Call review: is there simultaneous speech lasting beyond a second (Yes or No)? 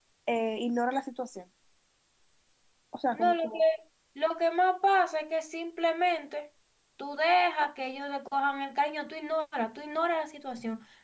No